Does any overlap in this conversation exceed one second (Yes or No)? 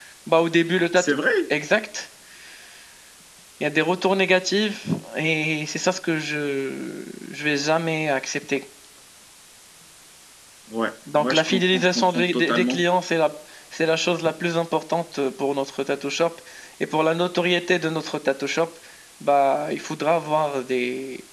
Yes